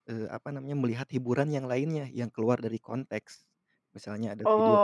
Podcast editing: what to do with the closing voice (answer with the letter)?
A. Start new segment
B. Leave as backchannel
A